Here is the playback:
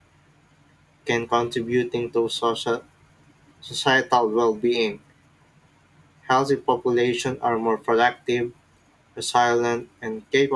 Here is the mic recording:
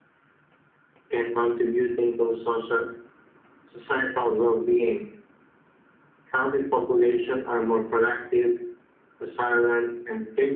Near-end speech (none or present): none